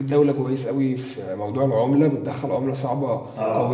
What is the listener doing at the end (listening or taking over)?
listening